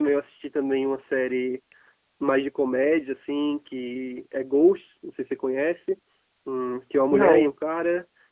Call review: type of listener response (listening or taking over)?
listening